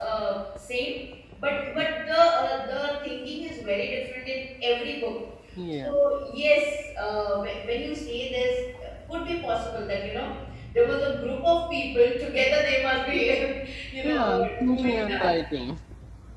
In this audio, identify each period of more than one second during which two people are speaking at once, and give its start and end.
14.0-15.3

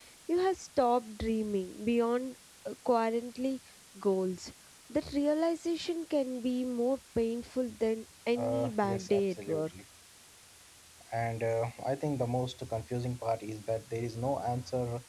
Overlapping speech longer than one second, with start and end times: 8.4-9.6

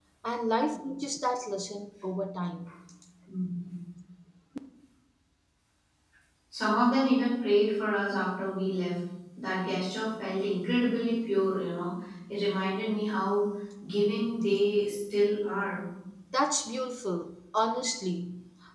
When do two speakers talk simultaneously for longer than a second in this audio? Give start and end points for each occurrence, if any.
none

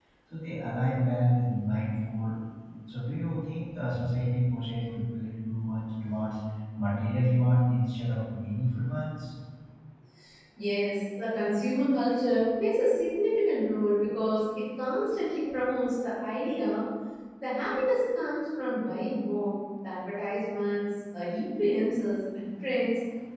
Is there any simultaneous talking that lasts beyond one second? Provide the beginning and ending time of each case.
none

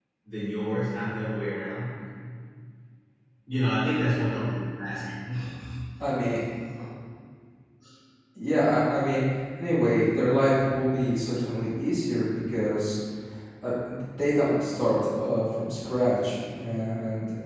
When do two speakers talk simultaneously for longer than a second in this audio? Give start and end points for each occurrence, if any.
none

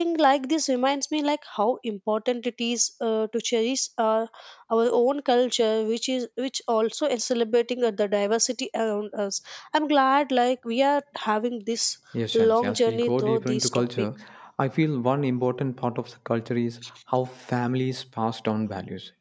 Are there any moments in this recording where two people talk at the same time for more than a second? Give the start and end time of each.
12.5-13.9

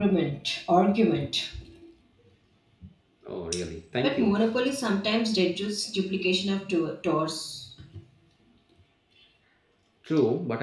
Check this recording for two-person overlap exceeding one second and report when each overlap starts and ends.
none

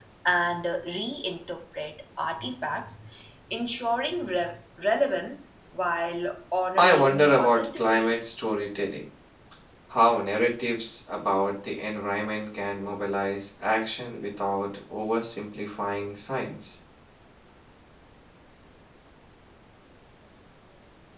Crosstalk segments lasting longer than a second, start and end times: 6.8-8.2

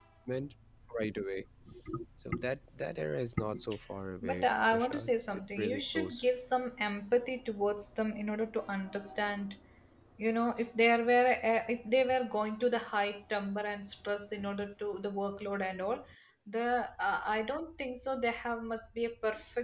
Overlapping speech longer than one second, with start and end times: 4.2-6.2

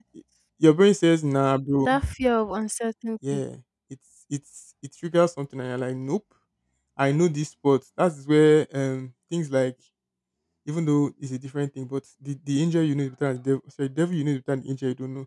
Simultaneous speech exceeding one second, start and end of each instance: none

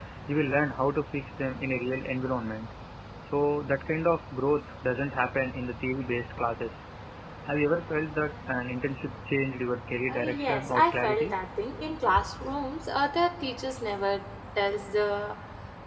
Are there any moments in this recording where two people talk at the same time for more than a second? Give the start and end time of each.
10.1-11.3

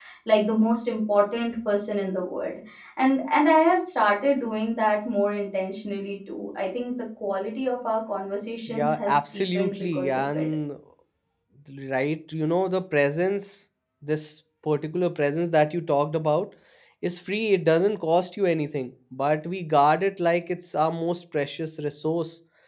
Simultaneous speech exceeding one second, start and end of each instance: 8.7-10.5

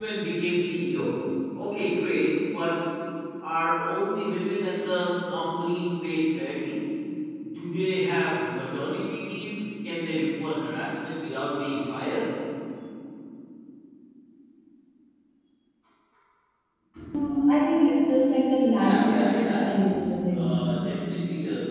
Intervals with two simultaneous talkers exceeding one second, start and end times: 18.8-20.6

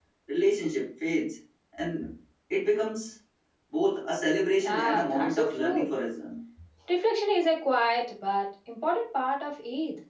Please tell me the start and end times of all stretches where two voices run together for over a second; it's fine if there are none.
4.6-5.9

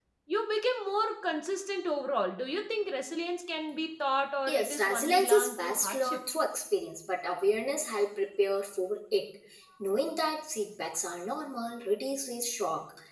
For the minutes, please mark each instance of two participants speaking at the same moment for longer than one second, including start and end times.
4.5-6.2

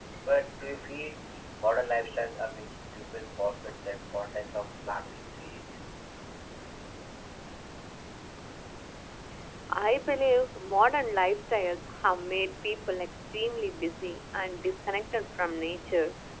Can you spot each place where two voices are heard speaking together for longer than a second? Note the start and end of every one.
none

